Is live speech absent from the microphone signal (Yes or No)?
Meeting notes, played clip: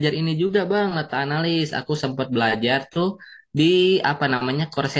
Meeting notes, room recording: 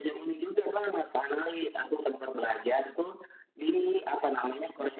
Yes